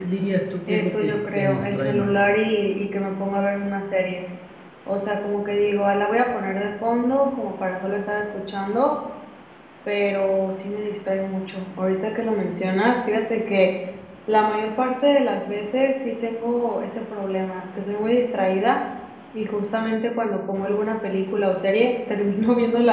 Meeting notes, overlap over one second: present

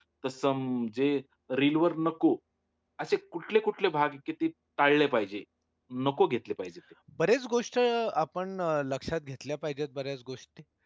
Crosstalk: none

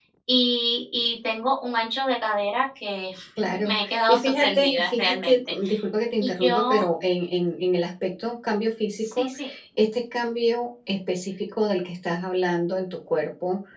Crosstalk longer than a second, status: present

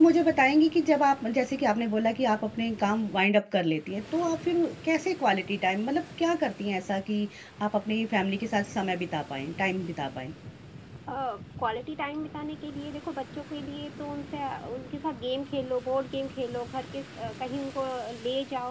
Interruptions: none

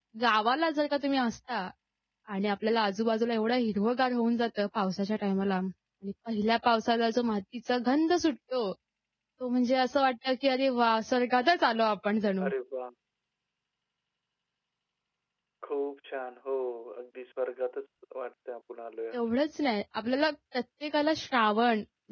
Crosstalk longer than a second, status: none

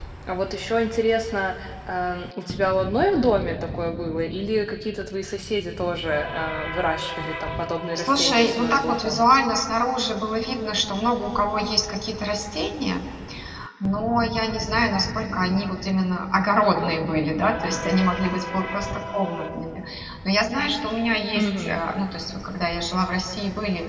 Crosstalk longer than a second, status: present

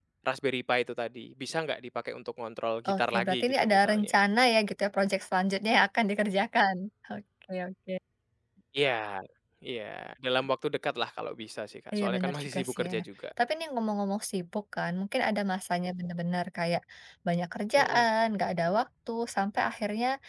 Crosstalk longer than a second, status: present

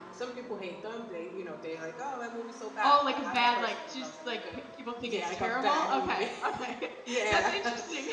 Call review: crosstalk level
present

